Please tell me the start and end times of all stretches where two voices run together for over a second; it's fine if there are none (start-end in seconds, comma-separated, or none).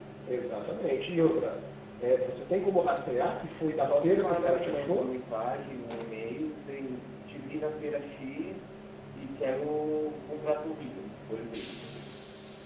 3.8-5.1